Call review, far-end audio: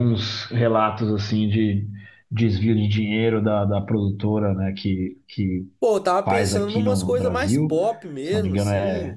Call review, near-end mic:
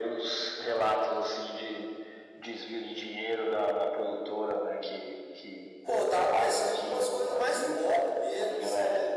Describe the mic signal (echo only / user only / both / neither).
echo only